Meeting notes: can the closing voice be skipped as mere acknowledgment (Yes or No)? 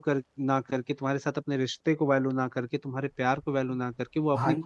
Yes